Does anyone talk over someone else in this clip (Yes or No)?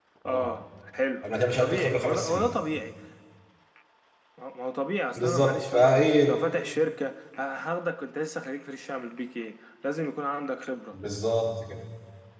Yes